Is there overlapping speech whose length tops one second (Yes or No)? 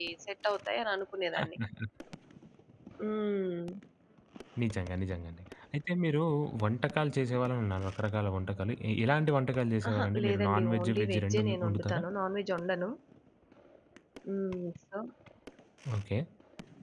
Yes